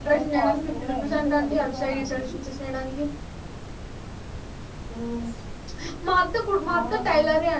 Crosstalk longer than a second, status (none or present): present